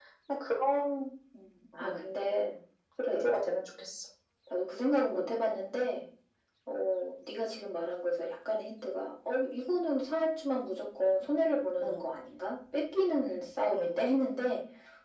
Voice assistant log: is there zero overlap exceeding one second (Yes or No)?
Yes